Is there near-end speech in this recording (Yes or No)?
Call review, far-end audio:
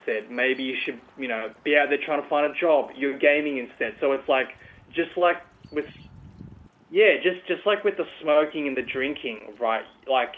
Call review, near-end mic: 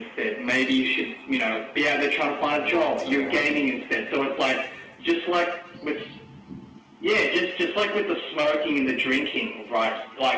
Yes